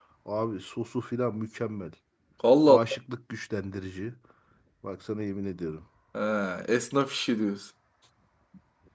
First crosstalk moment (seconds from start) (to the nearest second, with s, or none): none